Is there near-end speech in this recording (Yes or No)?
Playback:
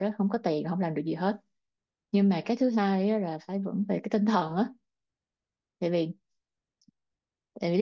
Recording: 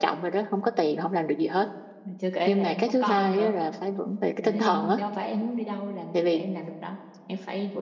Yes